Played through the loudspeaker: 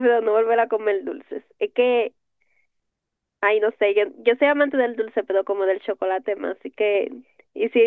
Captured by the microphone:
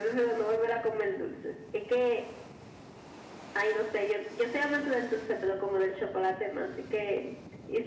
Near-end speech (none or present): none